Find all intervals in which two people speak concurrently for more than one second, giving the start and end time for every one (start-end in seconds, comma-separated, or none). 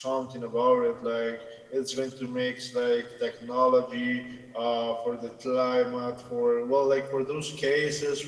none